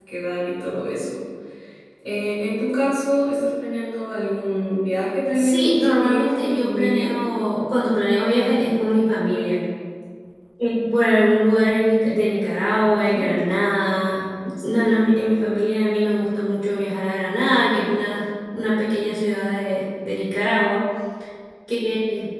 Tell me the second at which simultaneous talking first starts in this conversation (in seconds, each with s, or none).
5.3 s